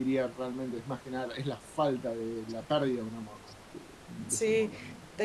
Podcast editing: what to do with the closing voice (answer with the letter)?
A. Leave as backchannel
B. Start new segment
B